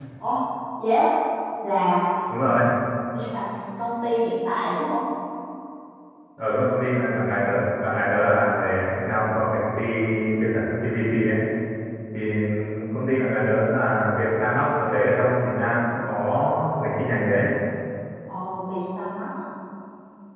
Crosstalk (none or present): none